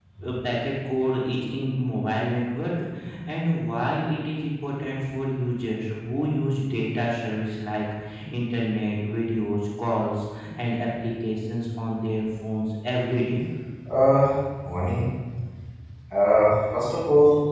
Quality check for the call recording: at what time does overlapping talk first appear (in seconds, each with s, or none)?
none